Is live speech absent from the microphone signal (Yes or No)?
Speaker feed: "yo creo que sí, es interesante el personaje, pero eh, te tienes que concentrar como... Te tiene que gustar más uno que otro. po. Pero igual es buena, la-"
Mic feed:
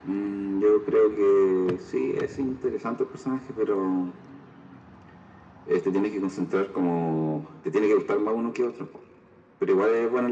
Yes